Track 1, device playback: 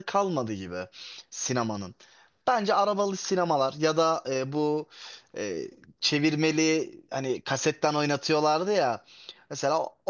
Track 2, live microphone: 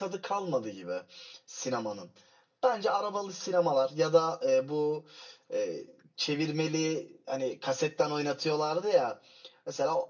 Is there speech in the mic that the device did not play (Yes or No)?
No